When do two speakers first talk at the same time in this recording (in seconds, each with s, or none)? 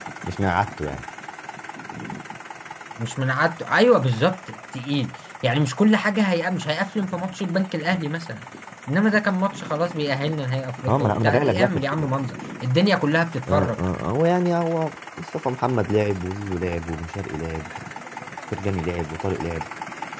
10.9 s